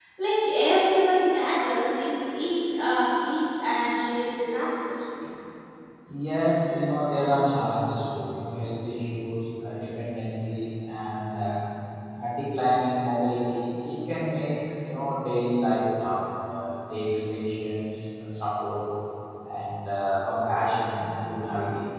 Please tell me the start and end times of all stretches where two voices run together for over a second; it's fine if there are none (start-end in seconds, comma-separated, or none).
none